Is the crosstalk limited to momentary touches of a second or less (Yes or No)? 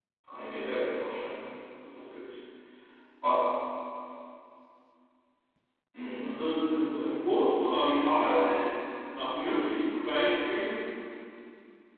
Yes